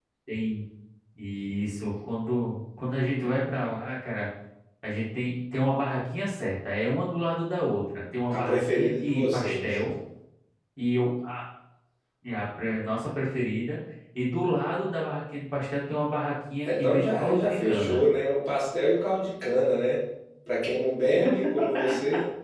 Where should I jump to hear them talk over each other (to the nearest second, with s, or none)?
8 s